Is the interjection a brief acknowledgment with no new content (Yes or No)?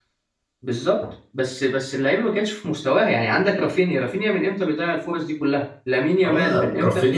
No